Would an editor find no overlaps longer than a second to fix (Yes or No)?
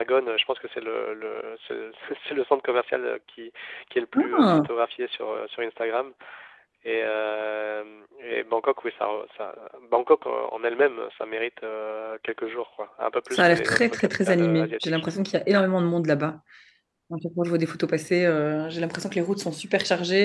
No